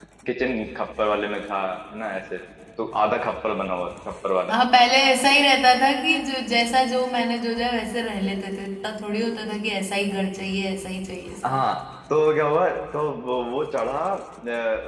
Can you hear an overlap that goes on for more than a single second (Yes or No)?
No